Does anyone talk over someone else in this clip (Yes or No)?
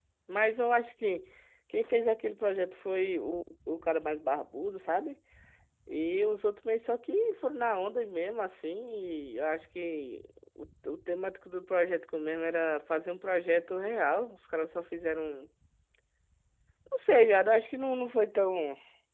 No